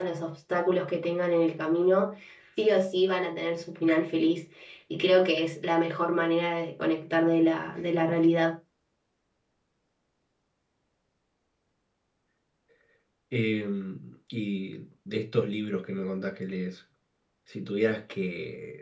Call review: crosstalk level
none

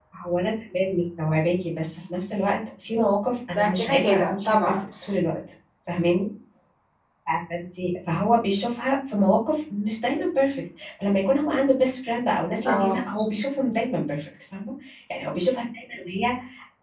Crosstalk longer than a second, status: present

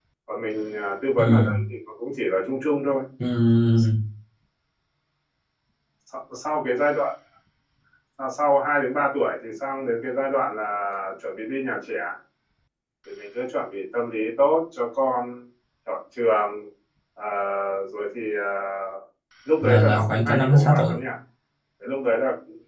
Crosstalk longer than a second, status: present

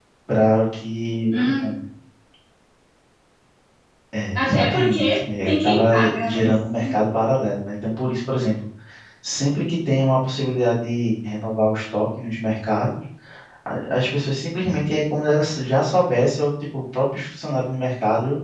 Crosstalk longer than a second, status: present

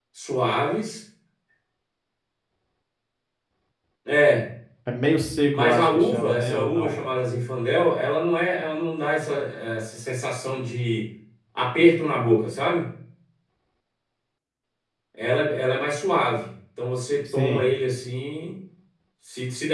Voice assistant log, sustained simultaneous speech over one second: present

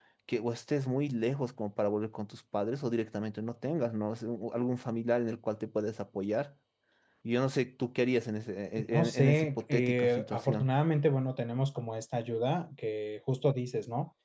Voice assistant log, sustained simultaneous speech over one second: present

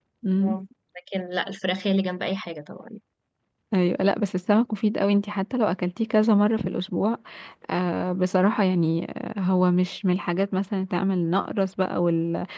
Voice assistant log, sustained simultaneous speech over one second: none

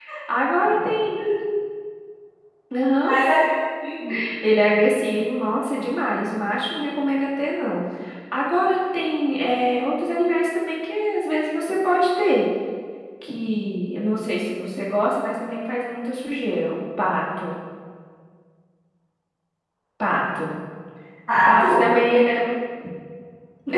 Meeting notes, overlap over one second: none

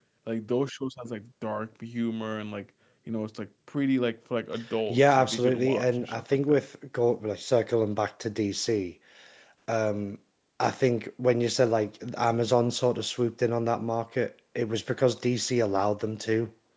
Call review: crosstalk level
present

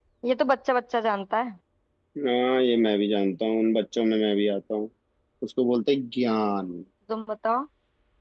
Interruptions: none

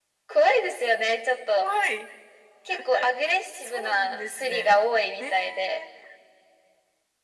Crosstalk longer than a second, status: present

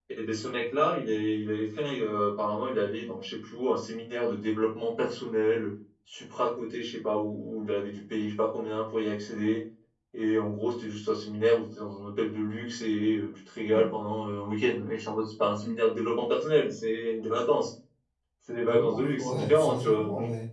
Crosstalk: present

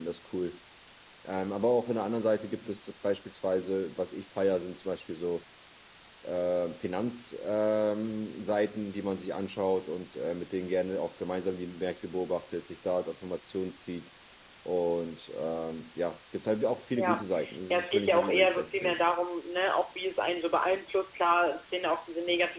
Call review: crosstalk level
present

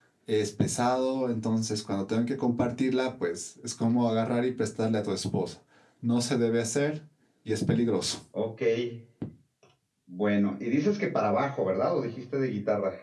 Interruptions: none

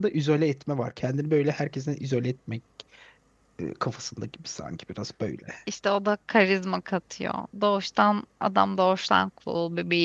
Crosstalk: none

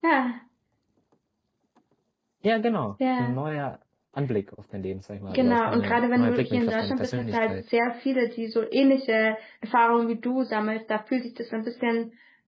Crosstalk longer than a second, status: present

